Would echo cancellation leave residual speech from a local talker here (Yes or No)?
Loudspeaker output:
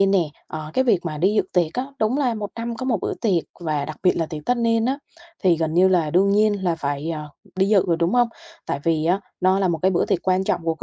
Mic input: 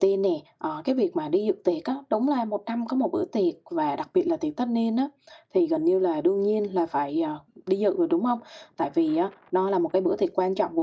No